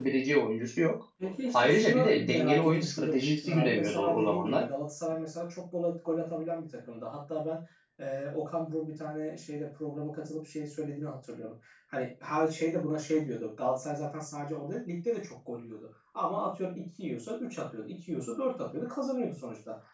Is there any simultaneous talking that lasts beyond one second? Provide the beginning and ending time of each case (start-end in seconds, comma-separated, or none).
1.5-4.7